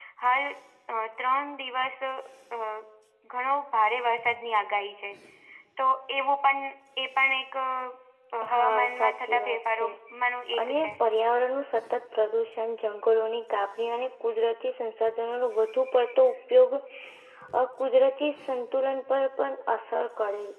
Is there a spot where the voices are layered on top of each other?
Yes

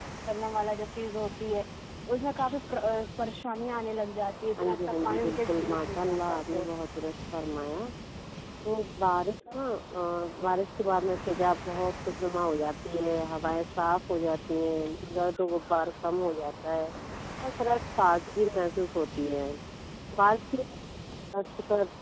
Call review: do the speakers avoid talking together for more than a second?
No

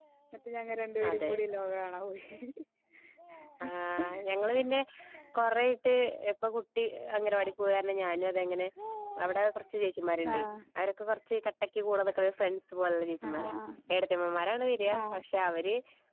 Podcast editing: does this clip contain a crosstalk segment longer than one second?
No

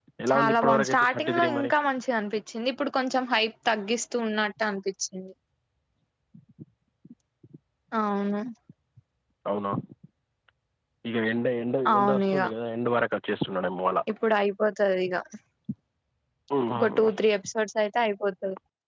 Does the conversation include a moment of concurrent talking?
Yes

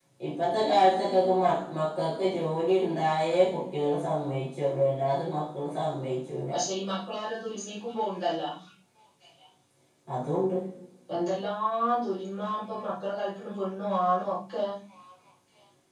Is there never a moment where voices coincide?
Yes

